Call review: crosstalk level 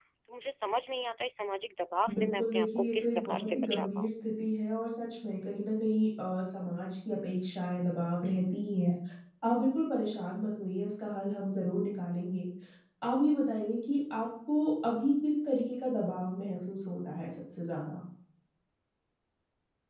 present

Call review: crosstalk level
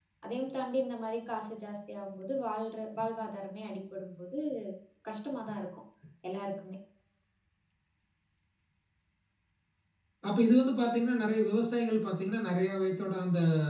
none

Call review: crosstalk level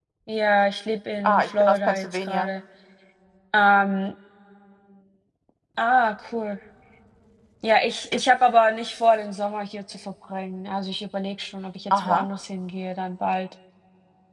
present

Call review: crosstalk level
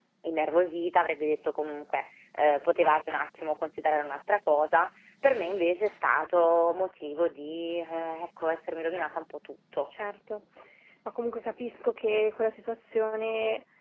none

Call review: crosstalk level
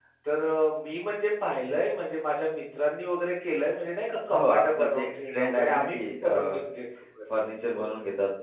present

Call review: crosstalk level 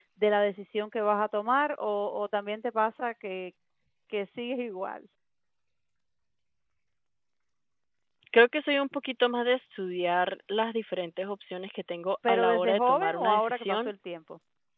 present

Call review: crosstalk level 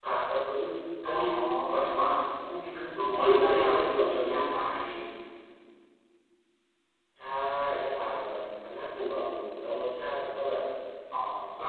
present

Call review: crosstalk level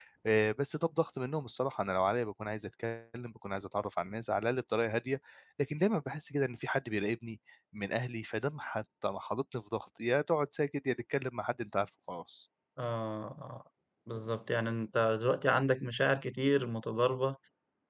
none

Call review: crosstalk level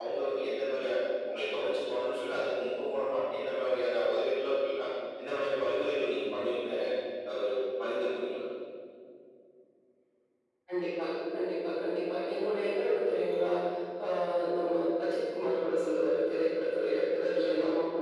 none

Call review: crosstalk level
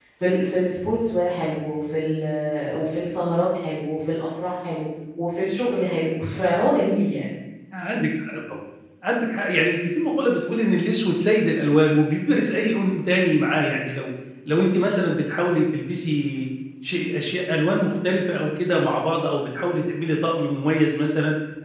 none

